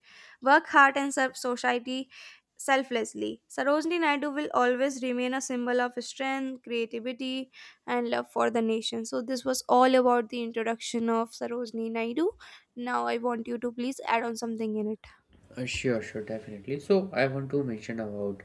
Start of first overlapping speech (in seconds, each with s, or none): none